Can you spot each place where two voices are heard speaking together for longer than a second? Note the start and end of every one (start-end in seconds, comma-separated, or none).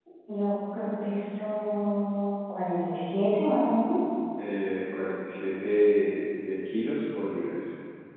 none